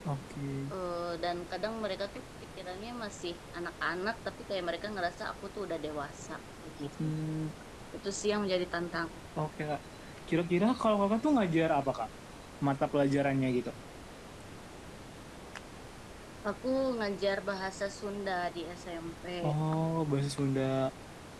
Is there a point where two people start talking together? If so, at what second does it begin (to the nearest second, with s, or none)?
none